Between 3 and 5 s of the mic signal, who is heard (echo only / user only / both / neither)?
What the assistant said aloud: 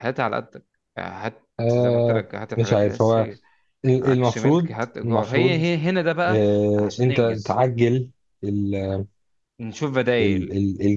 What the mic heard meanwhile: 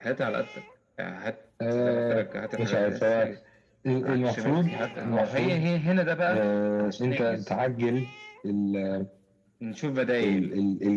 both